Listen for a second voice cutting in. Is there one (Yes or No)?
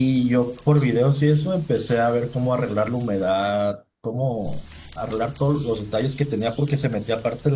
No